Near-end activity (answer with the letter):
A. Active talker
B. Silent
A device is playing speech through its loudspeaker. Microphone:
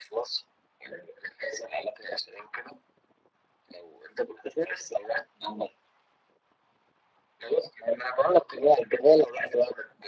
B